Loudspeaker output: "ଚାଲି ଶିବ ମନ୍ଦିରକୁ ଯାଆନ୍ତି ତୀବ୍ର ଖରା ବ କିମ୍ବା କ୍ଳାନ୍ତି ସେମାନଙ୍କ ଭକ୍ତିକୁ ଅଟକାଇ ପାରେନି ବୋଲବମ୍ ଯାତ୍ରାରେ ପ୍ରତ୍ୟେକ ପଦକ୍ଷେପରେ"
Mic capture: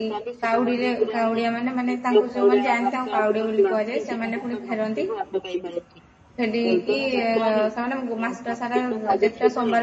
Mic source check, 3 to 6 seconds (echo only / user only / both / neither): both